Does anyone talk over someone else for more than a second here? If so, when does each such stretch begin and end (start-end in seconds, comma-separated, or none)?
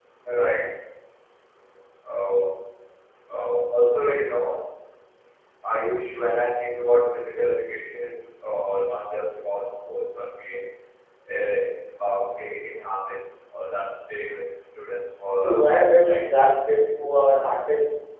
none